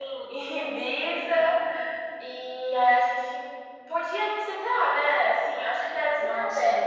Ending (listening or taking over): taking over